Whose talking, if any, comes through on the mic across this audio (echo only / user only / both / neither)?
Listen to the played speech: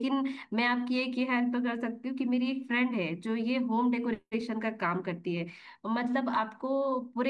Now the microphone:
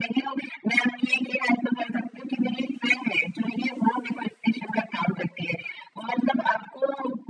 echo only